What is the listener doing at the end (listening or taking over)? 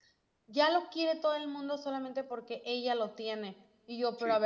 listening